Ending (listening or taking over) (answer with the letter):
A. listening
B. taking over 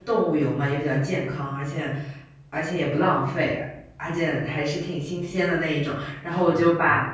A